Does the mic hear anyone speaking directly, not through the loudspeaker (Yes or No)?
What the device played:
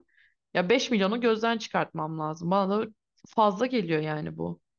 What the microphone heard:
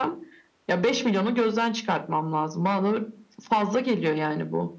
No